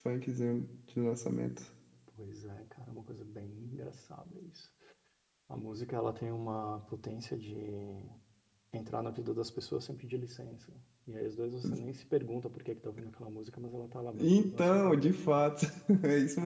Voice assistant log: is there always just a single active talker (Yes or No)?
No